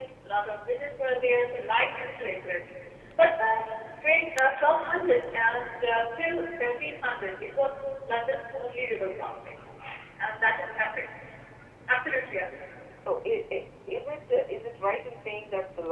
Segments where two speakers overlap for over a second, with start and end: none

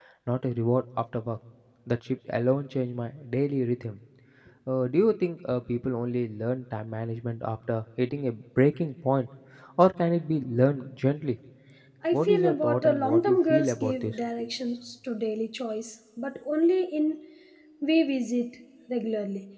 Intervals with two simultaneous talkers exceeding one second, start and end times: 12.1-14.2

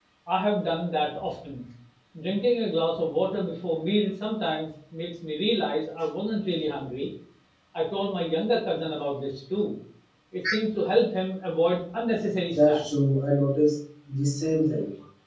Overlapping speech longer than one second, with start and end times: none

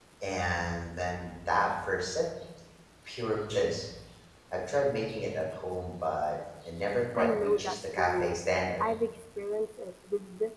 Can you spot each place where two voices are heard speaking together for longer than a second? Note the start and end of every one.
7.2-8.4

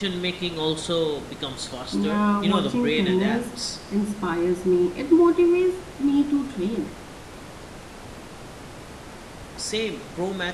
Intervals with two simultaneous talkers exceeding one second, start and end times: 1.9-3.4

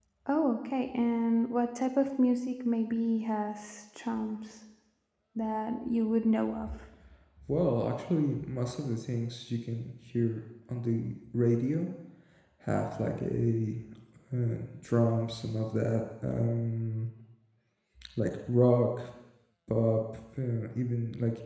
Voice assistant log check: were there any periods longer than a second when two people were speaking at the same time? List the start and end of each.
none

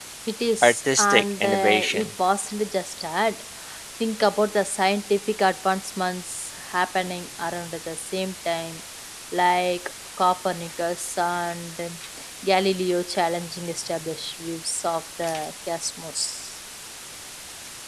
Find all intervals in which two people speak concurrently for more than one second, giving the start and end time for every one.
0.6-2.1

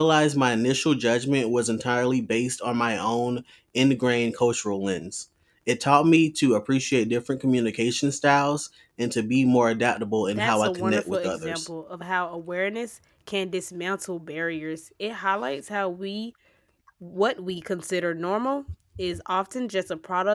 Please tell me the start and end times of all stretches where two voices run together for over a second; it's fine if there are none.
10.4-11.7

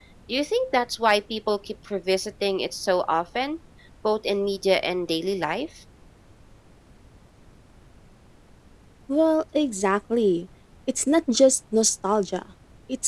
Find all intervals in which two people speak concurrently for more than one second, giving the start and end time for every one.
none

